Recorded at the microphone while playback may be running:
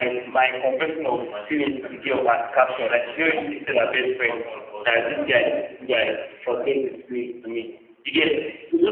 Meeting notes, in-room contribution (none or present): present